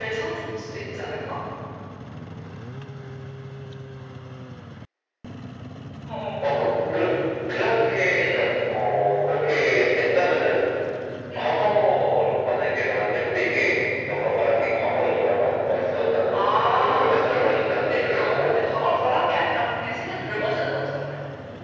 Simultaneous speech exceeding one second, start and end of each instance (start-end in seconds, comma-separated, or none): 16.3-18.5